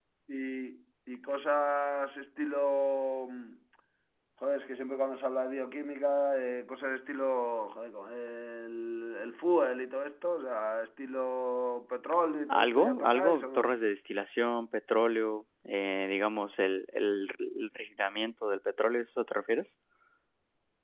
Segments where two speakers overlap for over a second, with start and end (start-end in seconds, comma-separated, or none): 12.5-13.7